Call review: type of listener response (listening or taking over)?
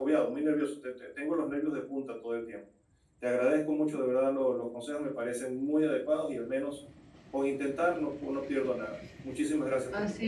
taking over